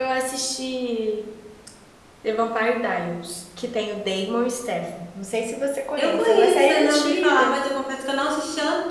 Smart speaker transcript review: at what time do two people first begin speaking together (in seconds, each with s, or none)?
6.0 s